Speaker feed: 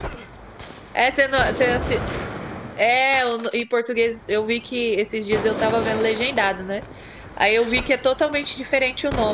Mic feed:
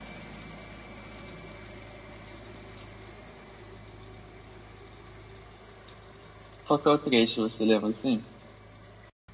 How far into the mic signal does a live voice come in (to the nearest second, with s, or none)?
7 s